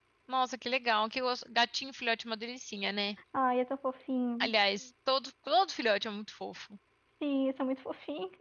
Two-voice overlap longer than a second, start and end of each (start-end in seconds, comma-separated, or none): none